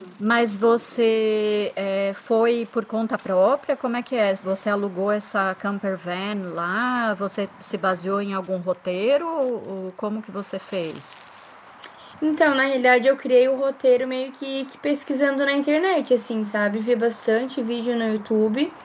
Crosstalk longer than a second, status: none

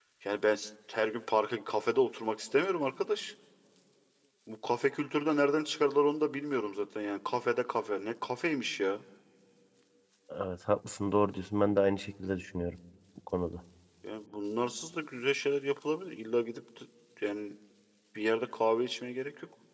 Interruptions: none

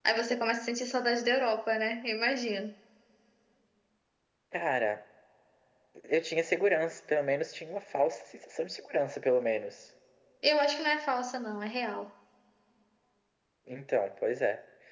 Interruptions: none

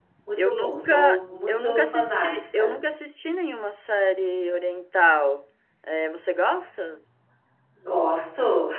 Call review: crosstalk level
present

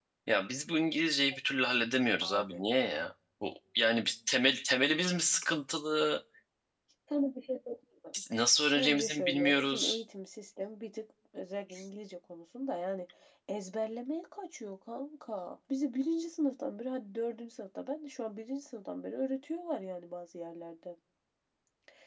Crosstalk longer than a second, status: present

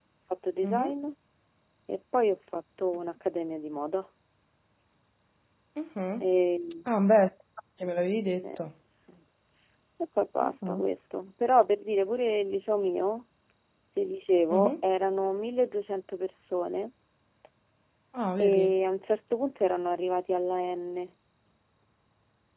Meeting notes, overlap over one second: none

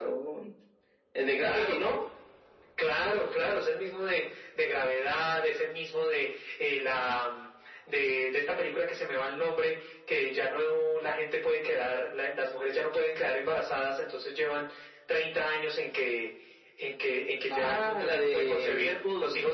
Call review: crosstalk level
present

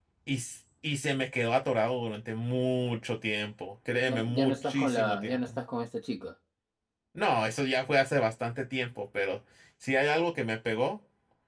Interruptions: present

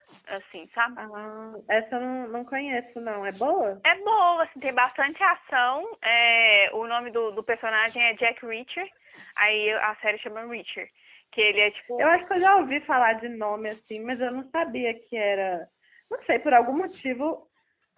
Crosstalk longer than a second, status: none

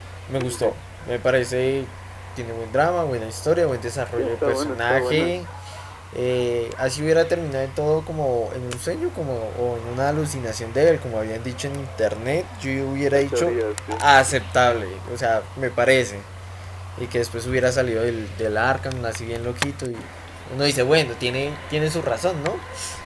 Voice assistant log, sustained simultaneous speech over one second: present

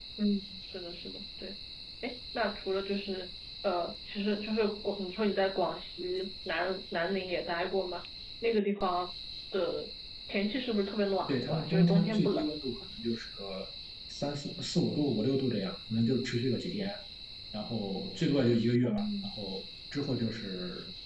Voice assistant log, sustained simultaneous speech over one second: present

